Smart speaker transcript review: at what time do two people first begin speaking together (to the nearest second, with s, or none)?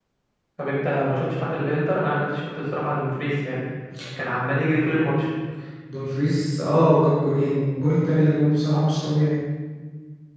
none